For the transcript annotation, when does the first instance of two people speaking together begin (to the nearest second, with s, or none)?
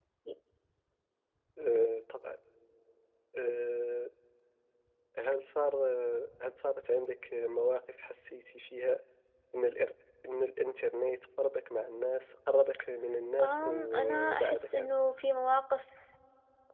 13 s